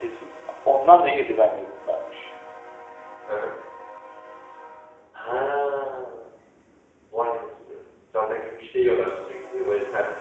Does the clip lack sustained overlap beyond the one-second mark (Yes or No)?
Yes